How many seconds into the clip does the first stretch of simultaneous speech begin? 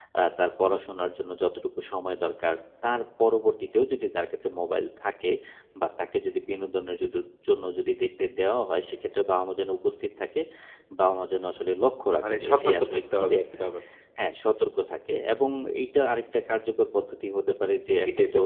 12.3 s

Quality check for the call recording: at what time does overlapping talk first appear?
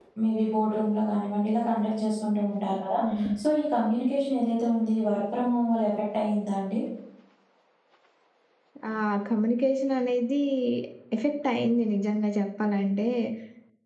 none

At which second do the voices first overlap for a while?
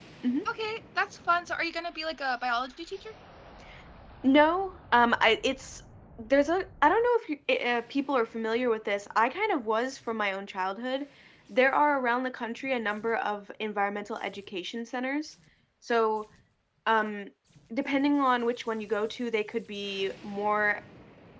none

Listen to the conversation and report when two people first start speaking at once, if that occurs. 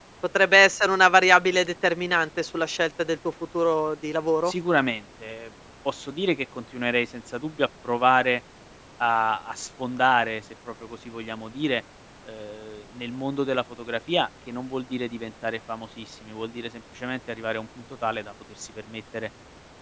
none

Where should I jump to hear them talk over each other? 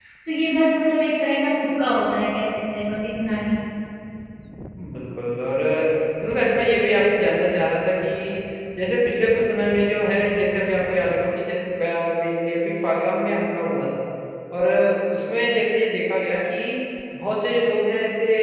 none

